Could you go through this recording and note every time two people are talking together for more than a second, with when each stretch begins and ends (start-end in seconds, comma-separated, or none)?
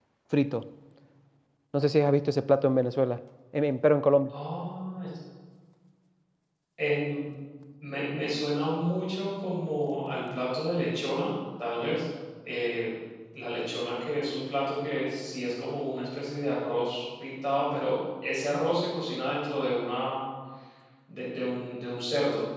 none